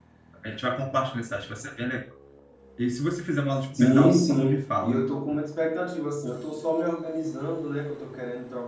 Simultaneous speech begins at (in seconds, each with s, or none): 3.8 s